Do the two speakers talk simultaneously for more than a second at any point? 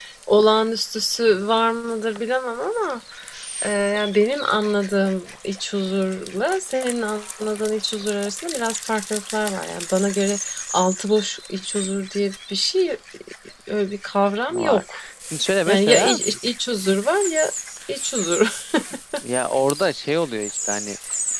No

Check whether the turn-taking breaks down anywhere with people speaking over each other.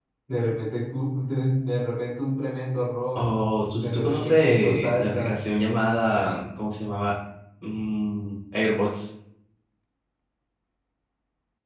Yes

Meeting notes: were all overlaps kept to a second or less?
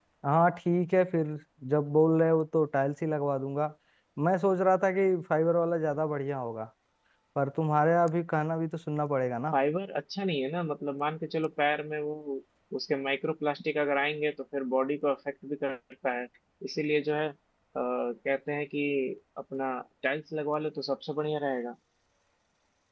Yes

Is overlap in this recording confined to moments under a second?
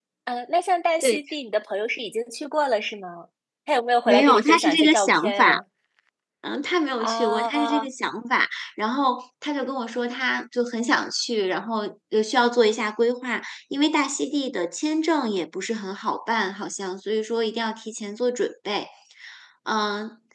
No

